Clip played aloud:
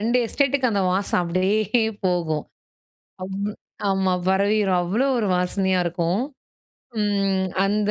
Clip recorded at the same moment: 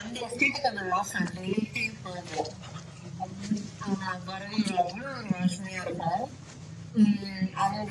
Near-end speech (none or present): none